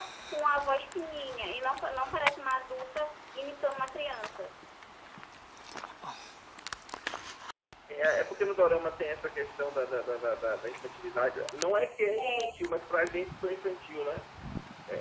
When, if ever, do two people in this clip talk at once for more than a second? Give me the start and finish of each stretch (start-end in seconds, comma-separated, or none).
none